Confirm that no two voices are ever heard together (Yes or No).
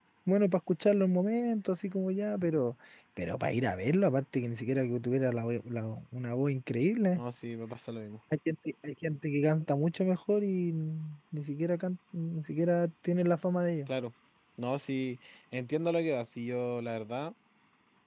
Yes